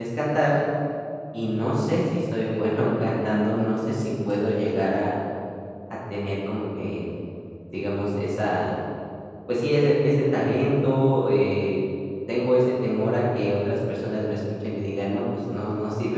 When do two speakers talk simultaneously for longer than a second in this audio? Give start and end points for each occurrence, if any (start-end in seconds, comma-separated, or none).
2.8-5.0